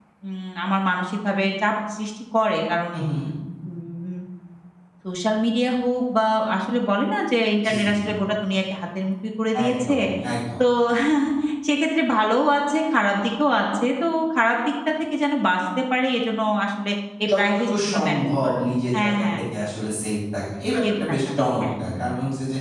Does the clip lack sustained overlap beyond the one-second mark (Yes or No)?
No